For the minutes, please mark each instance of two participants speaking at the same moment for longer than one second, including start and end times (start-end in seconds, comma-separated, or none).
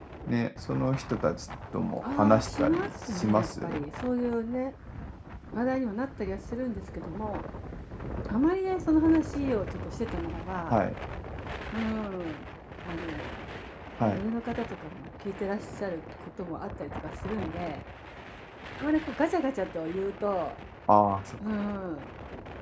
2.0-3.8